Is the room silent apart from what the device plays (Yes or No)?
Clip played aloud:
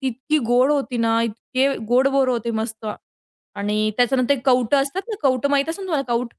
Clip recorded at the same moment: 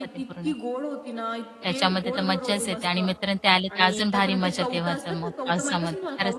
No